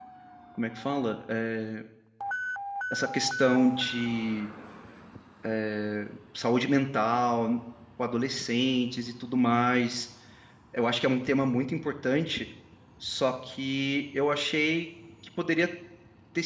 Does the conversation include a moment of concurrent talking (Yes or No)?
No